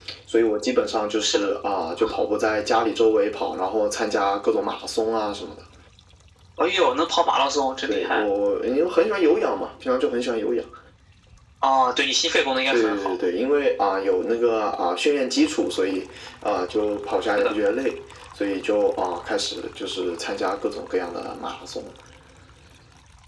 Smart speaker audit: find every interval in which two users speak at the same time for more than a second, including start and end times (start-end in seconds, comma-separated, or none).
none